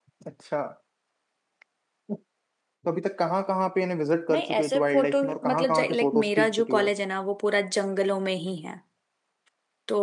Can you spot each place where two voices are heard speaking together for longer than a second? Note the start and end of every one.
4.3-6.9

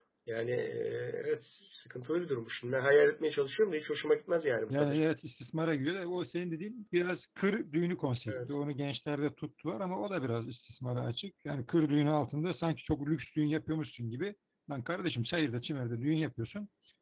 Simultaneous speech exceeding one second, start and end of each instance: none

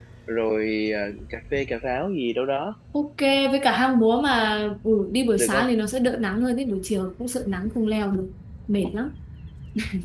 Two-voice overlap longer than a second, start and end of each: none

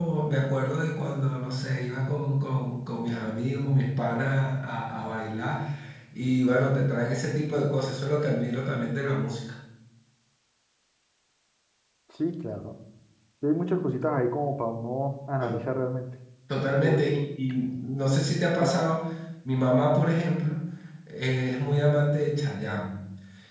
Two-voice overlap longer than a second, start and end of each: none

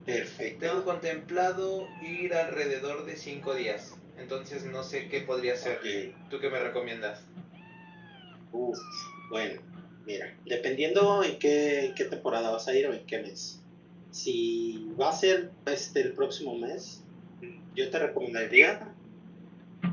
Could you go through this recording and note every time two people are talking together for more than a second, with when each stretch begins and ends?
none

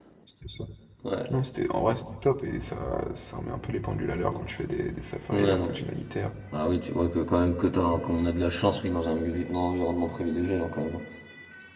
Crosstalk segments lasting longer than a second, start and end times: none

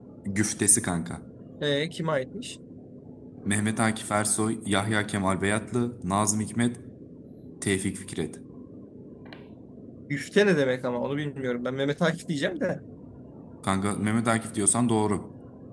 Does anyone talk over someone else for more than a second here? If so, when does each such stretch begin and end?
none

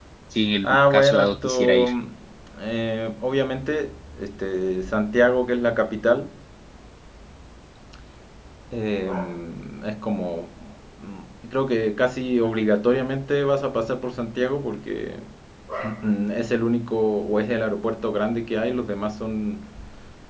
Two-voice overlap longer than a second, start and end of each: 0.6-1.9

